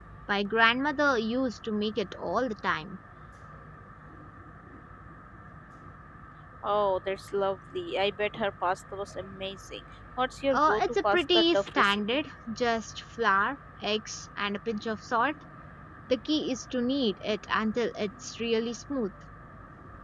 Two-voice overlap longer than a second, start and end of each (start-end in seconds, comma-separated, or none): 10.5-12.0